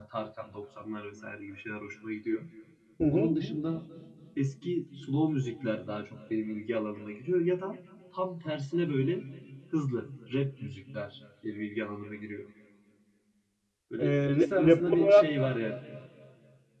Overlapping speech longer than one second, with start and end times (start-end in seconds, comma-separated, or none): 14.0-15.3